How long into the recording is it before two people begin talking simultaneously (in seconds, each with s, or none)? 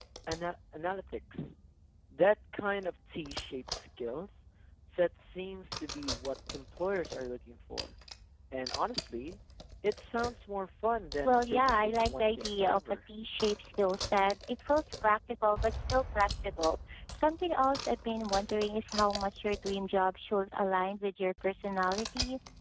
11.2 s